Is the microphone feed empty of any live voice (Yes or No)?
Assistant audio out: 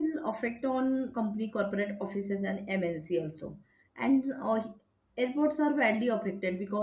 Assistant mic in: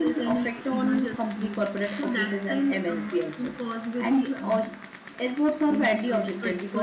No